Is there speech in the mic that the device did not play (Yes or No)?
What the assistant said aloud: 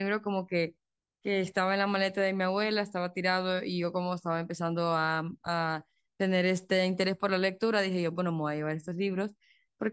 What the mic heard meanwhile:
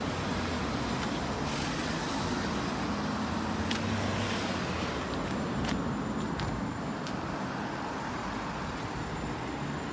No